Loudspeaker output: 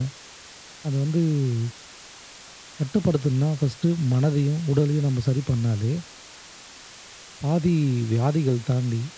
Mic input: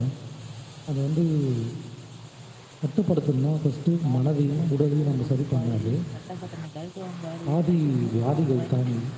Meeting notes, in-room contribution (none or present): present